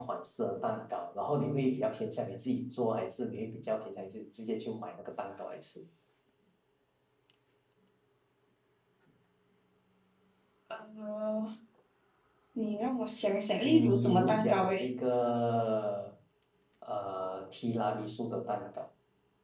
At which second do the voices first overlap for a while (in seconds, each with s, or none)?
13.6 s